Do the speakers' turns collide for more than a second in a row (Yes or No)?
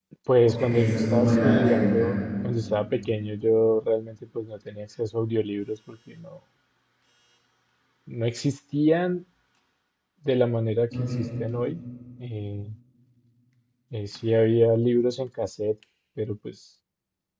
Yes